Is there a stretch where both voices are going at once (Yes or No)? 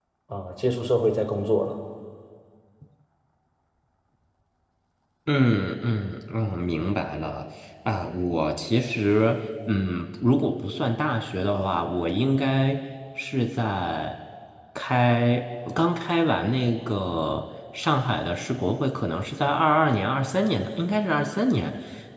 No